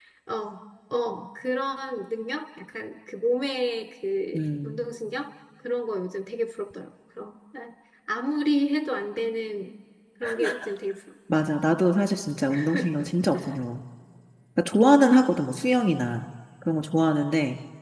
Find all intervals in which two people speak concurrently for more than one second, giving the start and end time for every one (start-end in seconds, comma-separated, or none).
none